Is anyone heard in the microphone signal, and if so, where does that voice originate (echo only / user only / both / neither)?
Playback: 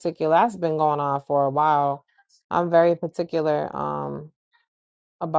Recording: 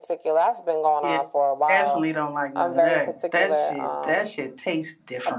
both